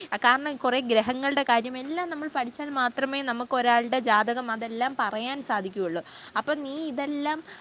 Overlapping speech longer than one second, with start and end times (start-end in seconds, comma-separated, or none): none